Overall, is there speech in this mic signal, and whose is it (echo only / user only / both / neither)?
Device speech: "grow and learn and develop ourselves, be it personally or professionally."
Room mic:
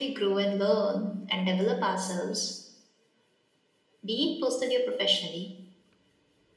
echo only